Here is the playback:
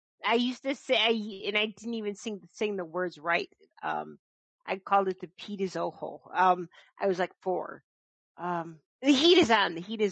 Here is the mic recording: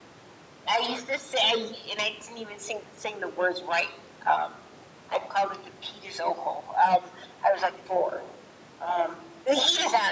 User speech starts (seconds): none

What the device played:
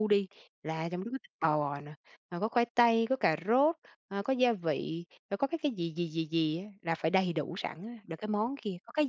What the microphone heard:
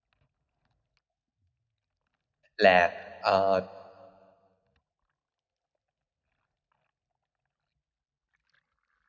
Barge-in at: 2.6 s

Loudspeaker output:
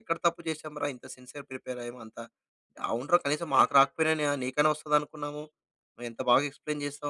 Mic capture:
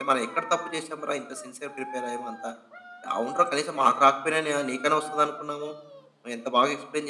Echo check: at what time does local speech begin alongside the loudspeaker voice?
none

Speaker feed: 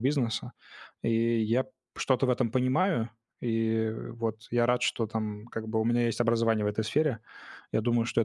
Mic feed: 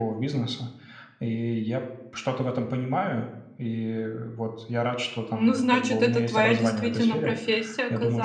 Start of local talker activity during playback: 5.3 s

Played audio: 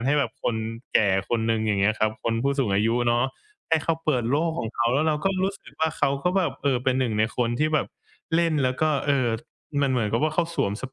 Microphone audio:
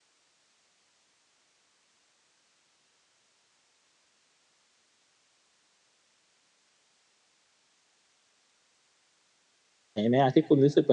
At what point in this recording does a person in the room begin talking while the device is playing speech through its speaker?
9.9 s

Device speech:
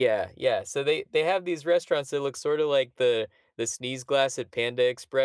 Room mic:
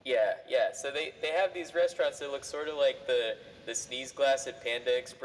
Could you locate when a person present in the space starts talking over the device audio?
none

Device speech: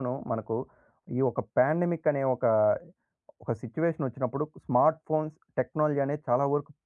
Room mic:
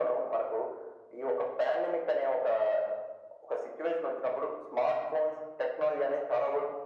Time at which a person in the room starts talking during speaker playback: none

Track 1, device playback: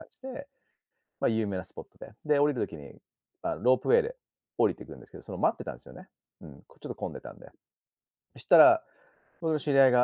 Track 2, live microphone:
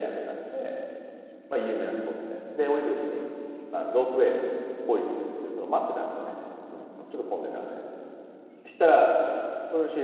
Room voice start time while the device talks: none

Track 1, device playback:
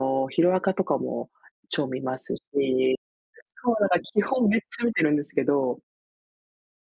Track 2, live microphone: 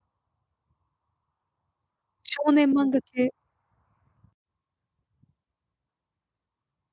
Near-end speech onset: 2.2 s

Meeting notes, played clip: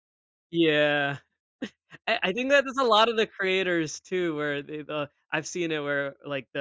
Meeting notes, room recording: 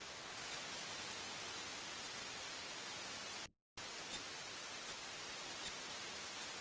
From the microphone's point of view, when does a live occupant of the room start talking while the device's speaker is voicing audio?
none

